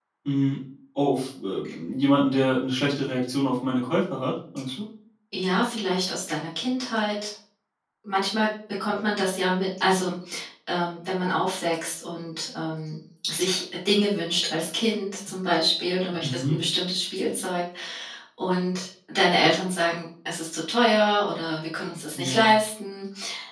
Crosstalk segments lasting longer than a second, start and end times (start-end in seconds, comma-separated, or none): none